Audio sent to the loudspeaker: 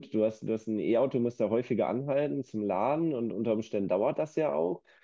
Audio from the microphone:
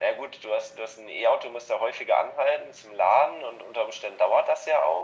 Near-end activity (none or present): none